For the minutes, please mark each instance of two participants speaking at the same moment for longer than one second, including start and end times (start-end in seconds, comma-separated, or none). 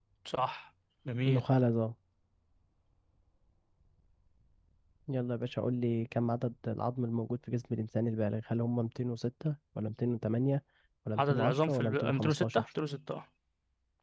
11.2-12.7